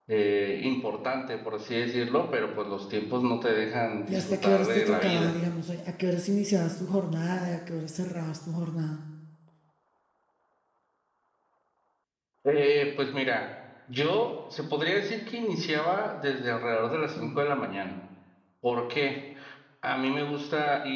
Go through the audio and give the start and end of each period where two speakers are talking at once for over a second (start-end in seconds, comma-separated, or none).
4.1-5.3